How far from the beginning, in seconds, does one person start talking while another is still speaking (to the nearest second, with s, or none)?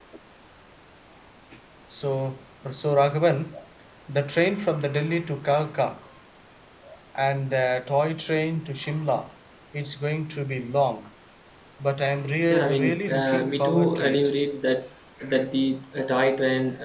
13 s